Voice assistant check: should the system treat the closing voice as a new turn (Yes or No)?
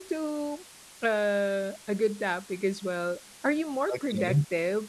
No